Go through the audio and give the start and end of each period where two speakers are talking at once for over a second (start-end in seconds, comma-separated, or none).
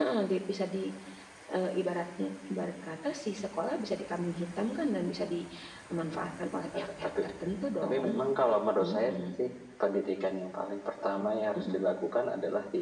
none